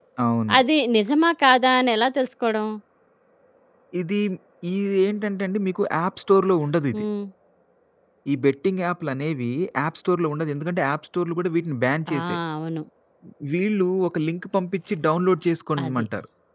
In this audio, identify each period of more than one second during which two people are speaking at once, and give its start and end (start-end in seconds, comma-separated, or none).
none